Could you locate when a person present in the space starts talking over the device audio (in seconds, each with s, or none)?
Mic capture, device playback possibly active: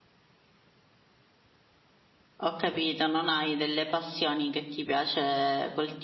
2.4 s